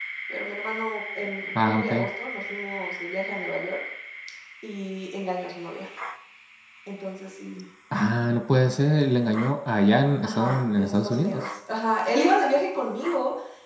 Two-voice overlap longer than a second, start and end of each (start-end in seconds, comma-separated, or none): 10.2-11.5